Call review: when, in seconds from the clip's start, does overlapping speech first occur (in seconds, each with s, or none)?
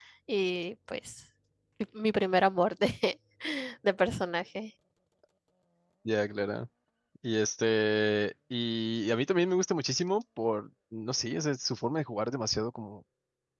none